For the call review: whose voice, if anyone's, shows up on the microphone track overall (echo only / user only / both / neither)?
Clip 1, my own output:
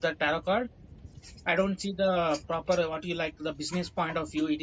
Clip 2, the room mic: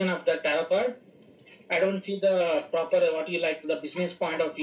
echo only